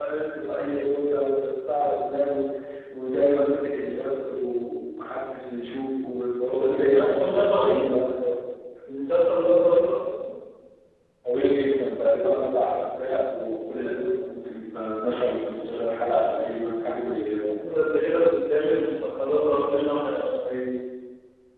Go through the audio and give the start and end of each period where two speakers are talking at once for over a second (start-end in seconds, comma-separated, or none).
6.5-7.8